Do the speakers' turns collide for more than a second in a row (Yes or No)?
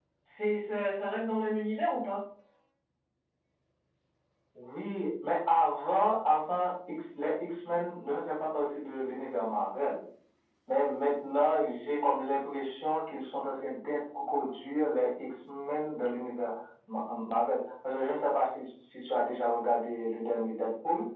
No